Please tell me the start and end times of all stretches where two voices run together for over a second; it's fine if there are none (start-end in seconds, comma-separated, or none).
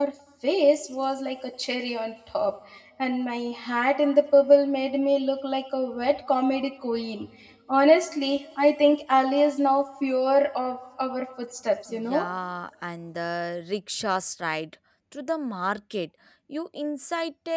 none